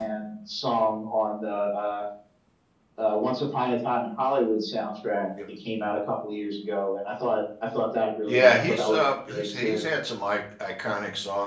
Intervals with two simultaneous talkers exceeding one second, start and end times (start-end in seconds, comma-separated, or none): 8.3-9.9